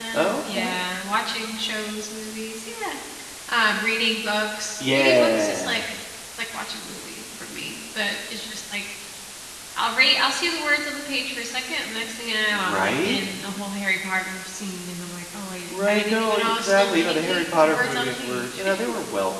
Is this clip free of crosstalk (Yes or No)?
No